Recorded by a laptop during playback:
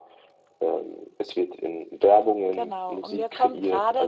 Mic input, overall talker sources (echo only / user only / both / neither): echo only